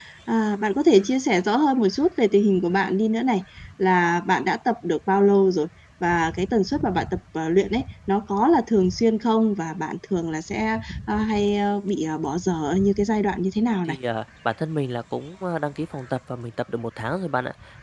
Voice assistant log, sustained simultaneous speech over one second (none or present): none